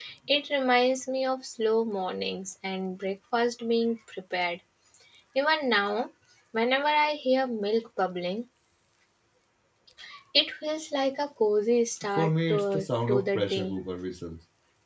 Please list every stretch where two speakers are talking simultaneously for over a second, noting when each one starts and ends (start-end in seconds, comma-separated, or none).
12.1-13.8